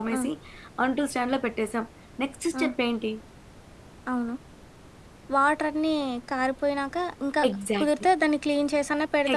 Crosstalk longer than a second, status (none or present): none